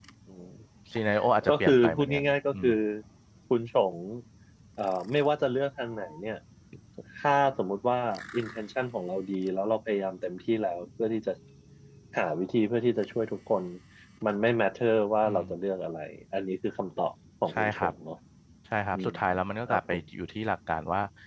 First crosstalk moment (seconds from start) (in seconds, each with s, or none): 1.5 s